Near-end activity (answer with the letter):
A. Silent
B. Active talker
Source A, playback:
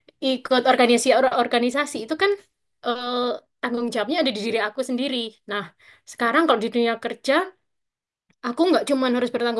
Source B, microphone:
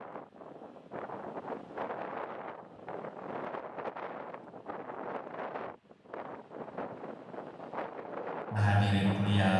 B